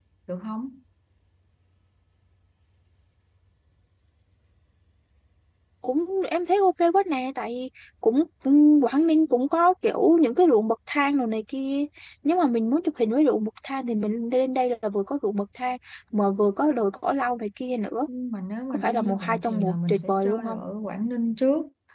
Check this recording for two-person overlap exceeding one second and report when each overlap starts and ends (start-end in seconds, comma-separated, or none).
18.7-20.6